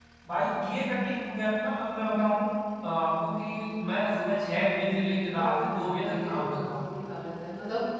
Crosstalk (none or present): present